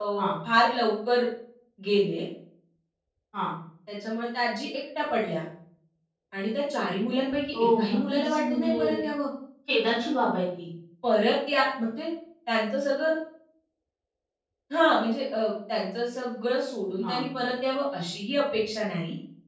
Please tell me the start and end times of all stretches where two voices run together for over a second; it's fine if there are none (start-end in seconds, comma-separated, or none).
7.5-8.9